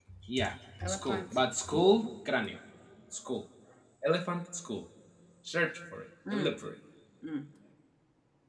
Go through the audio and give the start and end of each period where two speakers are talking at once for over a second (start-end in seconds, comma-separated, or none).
0.8-2.0